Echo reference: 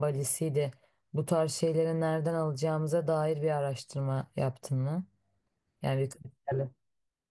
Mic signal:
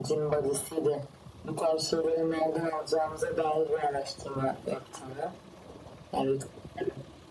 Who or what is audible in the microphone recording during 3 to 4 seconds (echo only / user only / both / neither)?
echo only